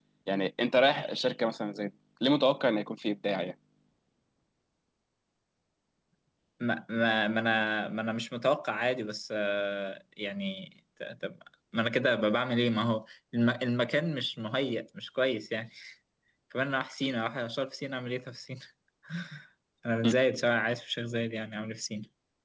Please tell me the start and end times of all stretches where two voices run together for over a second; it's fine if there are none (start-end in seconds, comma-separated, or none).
none